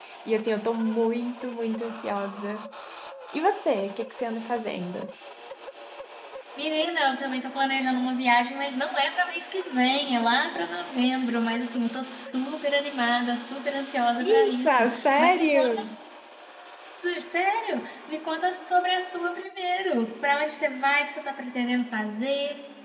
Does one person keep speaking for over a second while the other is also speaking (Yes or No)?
Yes